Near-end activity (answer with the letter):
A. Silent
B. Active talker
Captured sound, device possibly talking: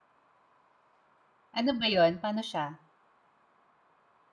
B